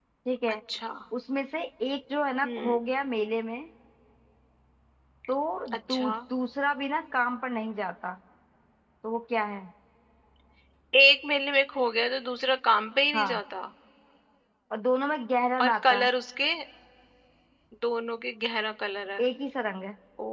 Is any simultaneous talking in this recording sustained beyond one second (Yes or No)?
No